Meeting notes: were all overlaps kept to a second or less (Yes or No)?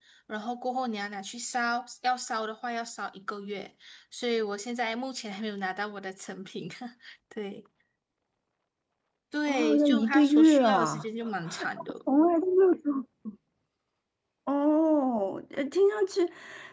No